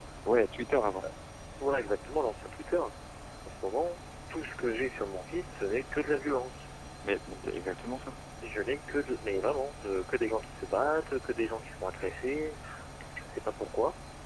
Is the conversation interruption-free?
Yes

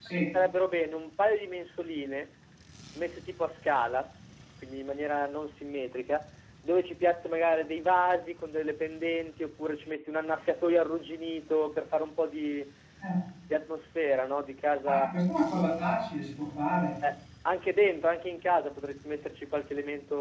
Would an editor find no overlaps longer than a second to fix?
Yes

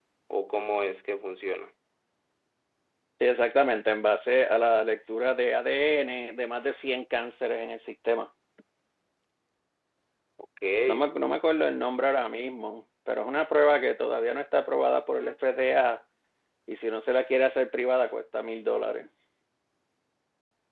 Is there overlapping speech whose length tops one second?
No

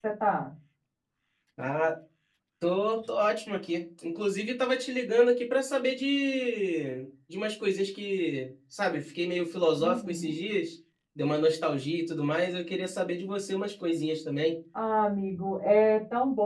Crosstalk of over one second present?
No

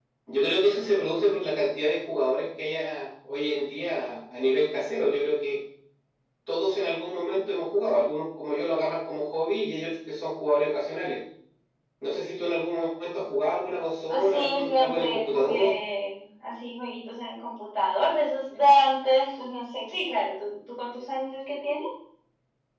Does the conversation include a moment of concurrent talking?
Yes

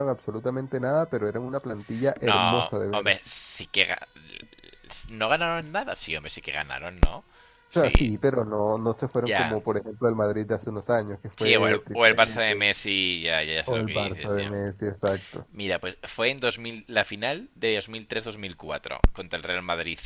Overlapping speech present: Yes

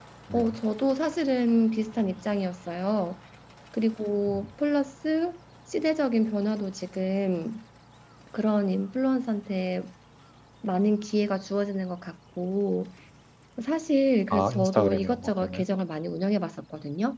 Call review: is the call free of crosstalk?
No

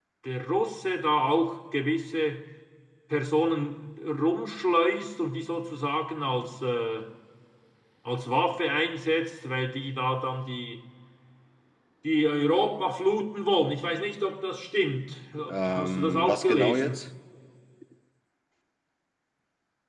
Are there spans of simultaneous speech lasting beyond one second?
Yes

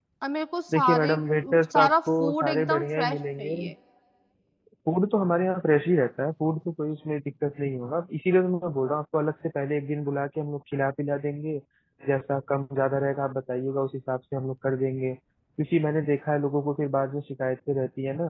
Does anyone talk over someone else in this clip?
Yes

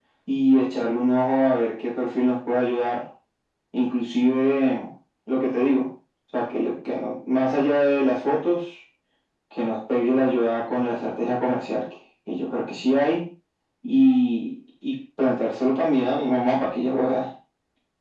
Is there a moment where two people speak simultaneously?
No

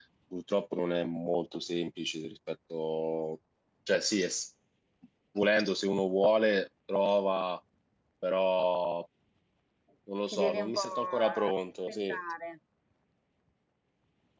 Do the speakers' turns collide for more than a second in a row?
Yes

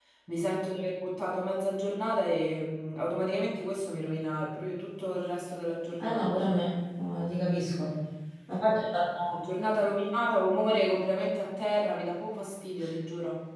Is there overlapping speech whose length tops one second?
No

